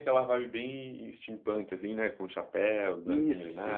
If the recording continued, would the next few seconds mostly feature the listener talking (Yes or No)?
Yes